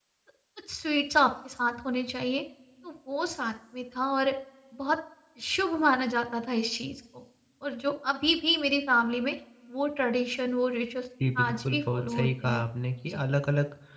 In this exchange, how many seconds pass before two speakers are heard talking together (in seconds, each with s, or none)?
11.5 s